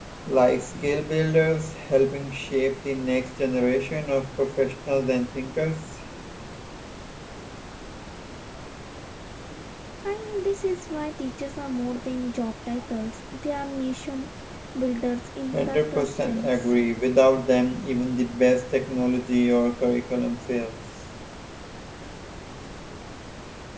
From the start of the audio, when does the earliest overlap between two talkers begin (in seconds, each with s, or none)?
15.5 s